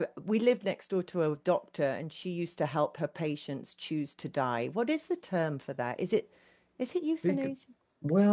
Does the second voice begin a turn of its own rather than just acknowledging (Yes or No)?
Yes